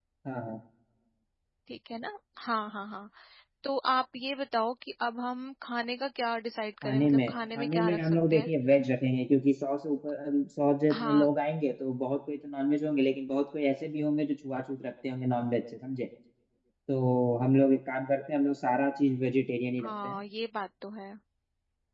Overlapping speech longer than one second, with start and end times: 6.8-8.5

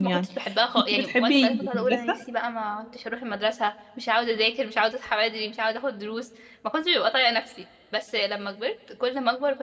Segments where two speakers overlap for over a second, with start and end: 0.9-2.2

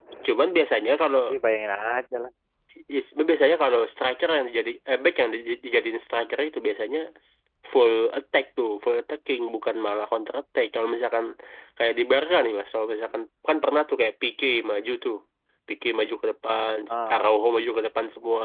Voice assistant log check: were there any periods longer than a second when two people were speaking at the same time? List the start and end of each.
none

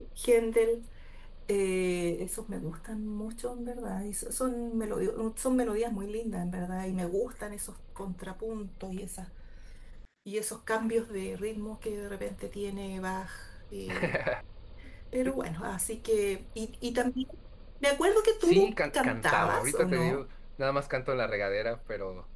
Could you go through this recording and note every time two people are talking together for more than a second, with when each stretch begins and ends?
18.4-20.2

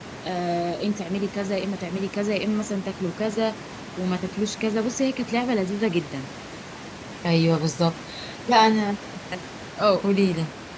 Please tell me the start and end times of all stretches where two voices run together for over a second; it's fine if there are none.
none

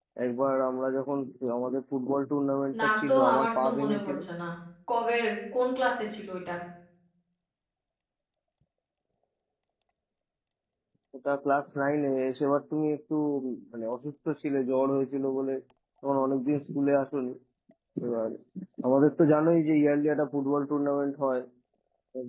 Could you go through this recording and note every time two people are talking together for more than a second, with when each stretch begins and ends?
2.8-4.1

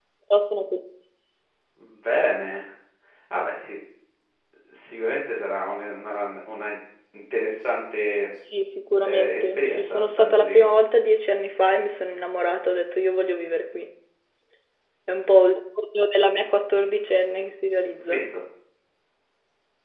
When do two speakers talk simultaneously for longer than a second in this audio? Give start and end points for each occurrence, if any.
9.0-10.7

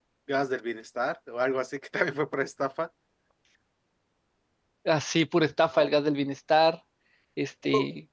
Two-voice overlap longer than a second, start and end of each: none

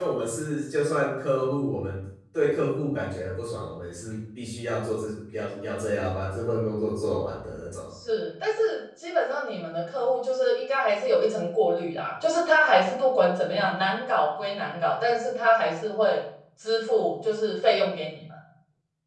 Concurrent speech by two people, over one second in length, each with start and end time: none

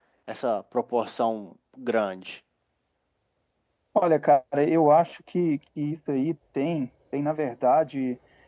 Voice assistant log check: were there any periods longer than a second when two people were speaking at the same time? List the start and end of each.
none

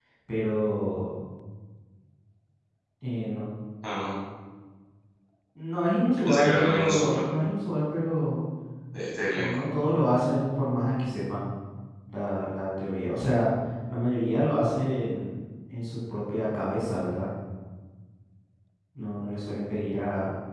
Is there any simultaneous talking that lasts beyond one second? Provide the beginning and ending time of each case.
6.2-7.4

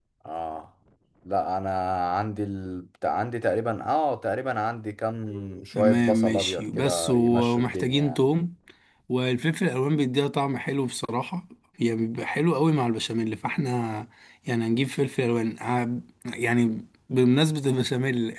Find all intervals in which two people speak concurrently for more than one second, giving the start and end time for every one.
5.7-8.2

